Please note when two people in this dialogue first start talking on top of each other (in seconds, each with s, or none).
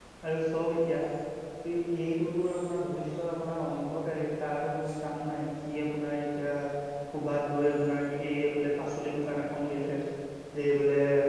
none